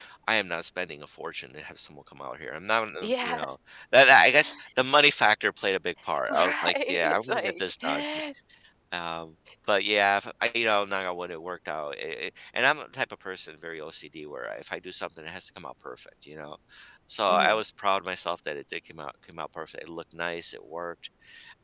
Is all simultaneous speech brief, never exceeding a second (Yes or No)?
No